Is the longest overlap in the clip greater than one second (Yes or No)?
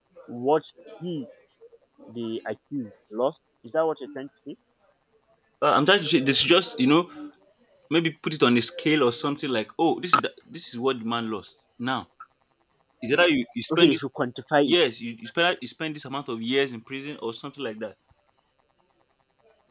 No